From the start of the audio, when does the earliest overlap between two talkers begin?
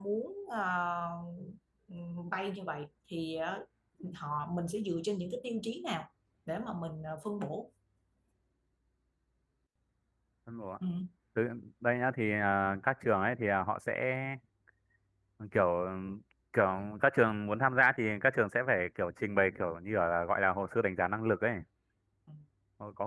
none

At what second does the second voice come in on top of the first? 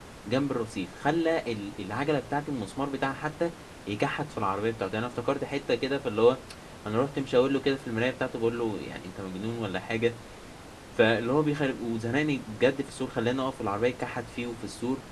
none

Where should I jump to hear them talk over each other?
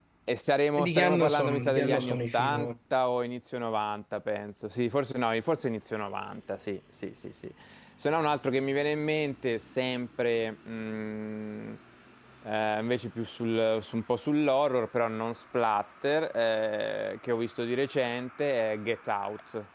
0.8 s

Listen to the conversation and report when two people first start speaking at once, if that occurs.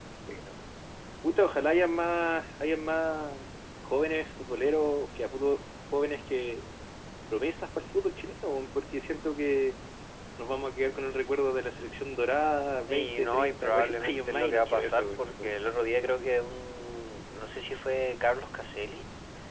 12.9 s

